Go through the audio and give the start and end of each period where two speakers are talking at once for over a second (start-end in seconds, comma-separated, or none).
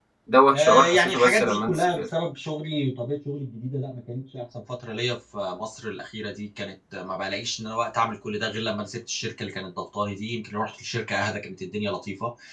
0.5-2.0